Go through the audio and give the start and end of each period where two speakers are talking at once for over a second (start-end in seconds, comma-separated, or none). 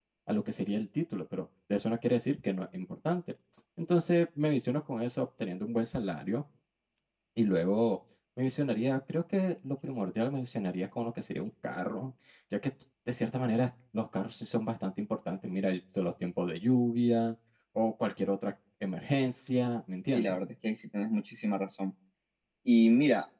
none